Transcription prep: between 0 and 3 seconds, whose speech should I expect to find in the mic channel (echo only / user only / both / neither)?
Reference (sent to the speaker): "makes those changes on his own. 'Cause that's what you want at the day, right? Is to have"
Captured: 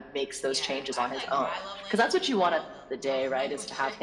both